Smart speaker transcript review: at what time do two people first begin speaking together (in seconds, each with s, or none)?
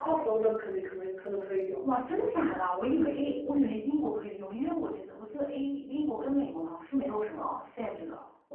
none